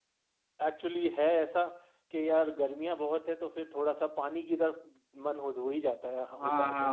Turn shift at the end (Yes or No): Yes